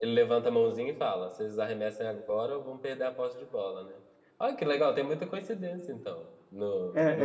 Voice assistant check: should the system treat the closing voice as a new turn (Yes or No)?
Yes